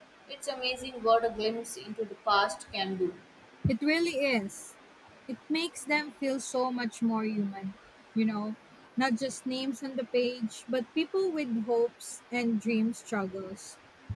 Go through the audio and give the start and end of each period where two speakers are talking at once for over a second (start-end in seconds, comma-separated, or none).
none